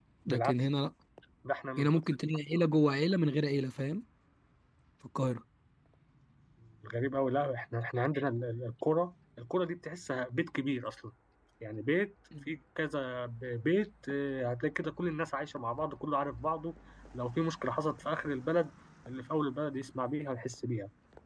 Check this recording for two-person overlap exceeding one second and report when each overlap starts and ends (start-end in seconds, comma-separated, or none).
none